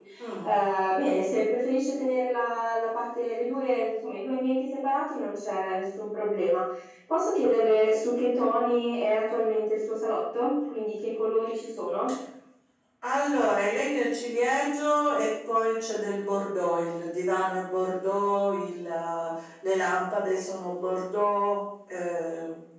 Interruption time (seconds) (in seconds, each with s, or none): none